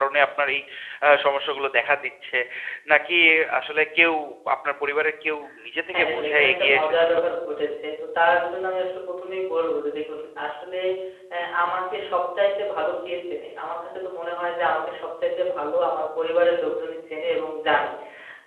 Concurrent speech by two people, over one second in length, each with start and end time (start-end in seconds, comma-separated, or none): 5.9-7.2